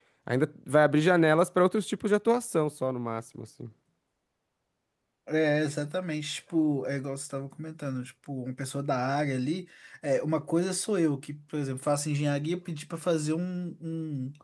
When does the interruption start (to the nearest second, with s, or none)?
none